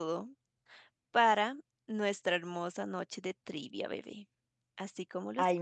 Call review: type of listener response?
taking over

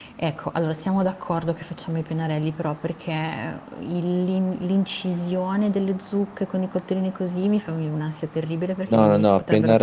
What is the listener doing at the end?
taking over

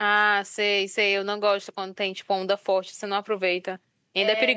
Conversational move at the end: taking over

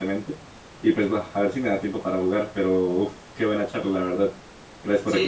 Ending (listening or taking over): taking over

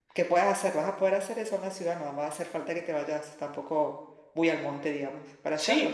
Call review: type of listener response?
taking over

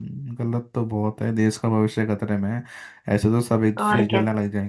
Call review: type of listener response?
listening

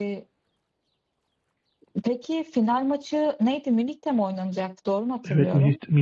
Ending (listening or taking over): taking over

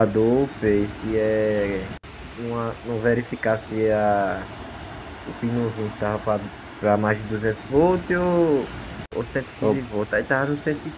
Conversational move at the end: listening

